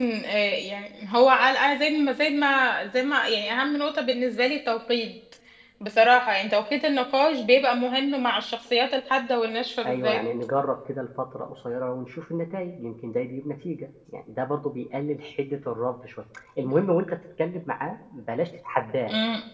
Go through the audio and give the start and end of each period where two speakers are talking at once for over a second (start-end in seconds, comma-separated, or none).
none